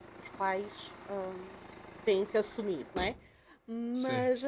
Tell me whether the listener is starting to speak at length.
No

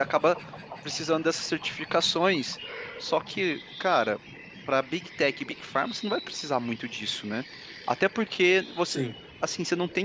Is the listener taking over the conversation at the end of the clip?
No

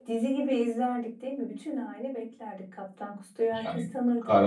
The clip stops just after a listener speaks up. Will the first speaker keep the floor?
No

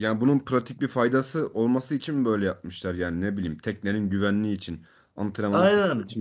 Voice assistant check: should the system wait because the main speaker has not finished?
No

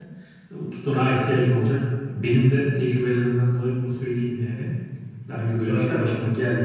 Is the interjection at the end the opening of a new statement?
No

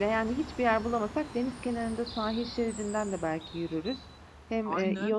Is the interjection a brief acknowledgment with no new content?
Yes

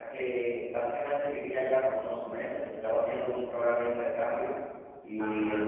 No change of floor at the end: Yes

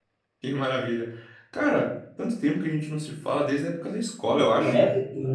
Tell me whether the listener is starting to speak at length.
Yes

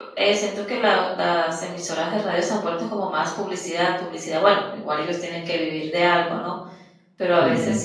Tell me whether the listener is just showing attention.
Yes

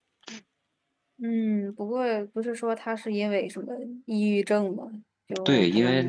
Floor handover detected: Yes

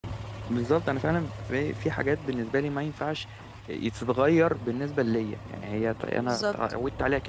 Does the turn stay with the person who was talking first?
Yes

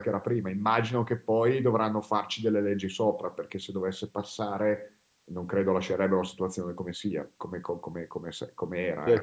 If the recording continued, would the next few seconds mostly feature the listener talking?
Yes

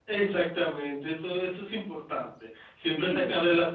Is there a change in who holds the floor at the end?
No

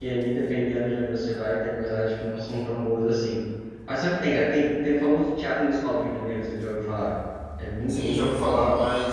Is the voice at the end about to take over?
Yes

